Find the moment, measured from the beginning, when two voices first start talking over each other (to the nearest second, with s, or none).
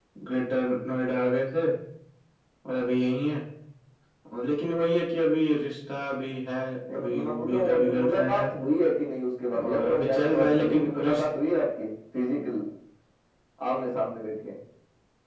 7 s